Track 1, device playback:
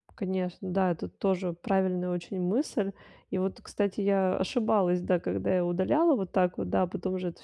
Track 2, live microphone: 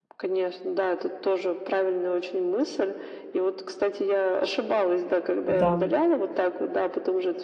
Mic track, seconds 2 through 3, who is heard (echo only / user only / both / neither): echo only